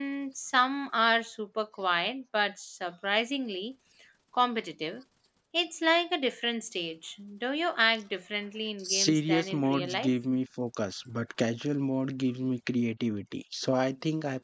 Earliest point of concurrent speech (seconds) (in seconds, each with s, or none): 8.8 s